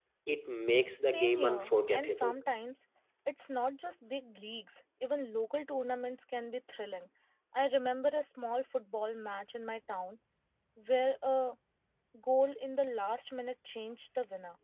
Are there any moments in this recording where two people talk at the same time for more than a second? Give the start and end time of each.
1.0-2.4

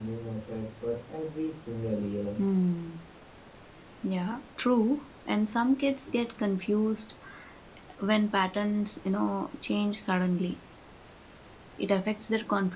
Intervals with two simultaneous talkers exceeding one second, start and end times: none

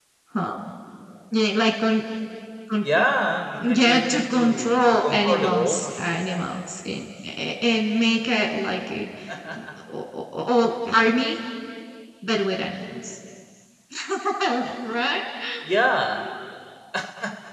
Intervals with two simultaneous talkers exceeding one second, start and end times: 3.7-5.9

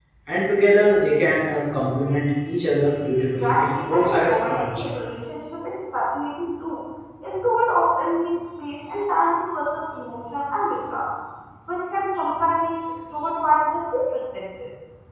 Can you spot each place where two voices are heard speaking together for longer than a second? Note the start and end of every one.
3.4-4.8

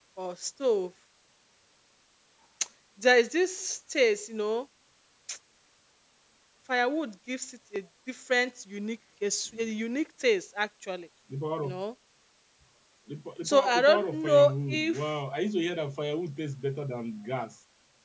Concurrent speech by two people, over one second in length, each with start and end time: 13.4-15.0

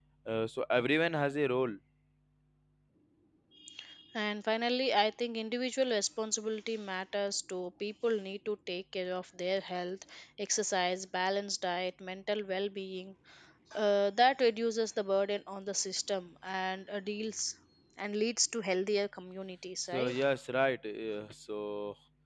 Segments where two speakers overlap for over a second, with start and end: none

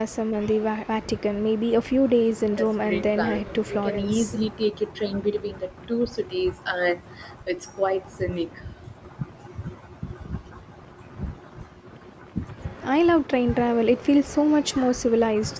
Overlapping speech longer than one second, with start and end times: 2.6-4.4

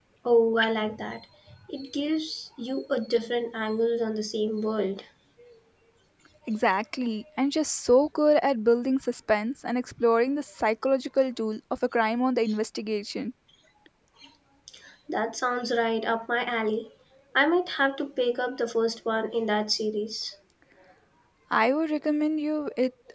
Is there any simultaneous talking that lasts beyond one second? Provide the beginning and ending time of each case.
none

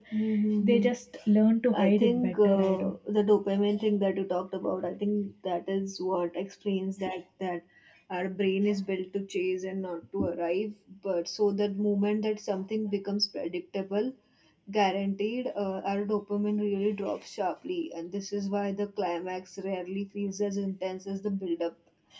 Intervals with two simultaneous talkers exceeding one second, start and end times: 1.7-2.9

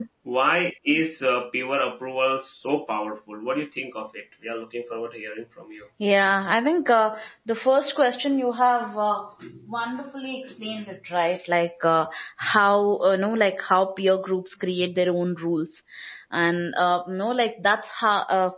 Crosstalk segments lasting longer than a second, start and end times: none

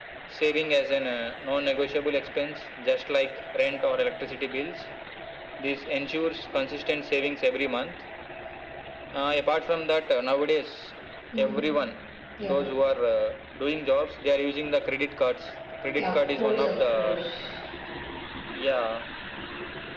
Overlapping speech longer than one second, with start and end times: 16.0-17.2

